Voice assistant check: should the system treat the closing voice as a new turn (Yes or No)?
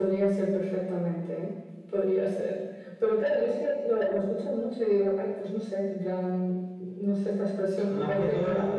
Yes